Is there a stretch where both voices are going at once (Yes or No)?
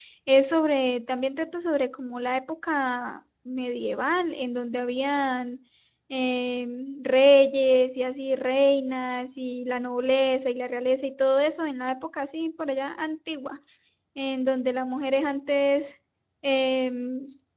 No